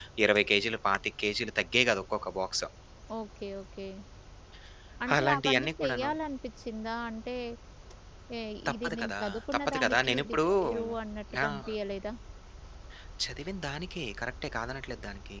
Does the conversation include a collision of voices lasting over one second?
Yes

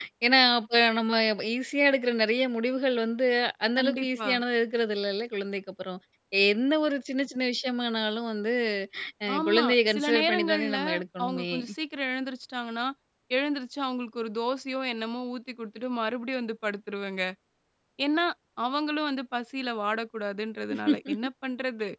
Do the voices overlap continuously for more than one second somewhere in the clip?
Yes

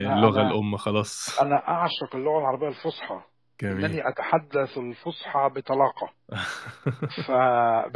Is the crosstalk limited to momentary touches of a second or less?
Yes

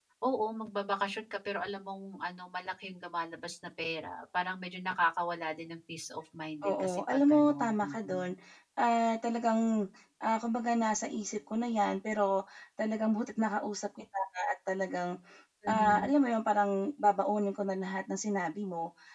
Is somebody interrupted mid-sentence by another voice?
Yes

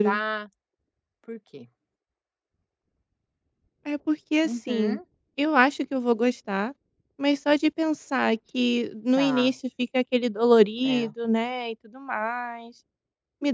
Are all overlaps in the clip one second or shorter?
Yes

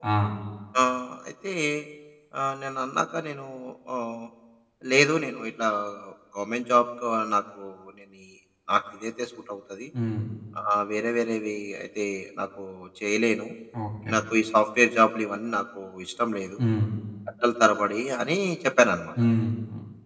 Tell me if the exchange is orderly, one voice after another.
Yes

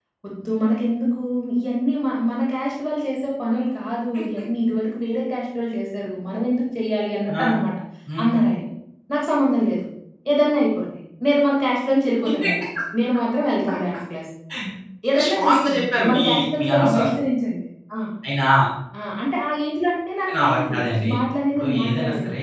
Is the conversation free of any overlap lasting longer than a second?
No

